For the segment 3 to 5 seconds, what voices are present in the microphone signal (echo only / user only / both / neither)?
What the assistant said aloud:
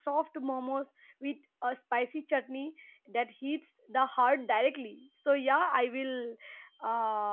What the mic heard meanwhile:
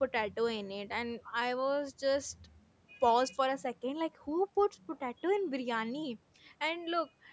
user only